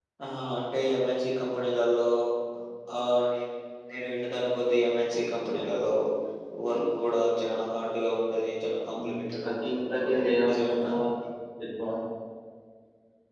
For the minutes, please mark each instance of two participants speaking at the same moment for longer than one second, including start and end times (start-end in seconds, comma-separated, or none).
9.0-10.9